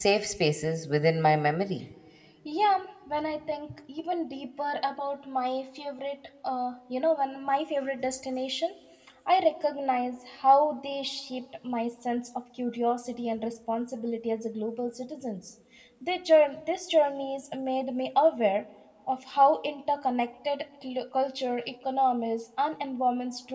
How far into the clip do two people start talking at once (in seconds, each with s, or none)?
none